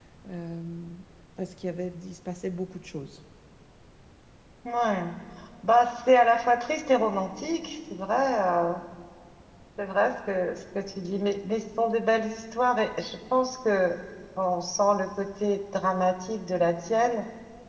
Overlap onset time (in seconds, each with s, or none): none